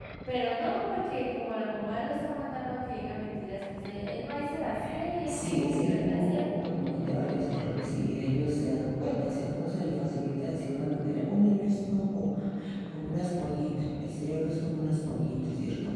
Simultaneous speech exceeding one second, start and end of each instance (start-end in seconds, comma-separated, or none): 5.2-6.7